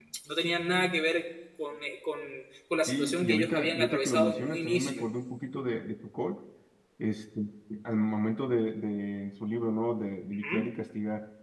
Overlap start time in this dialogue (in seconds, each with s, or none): 2.9 s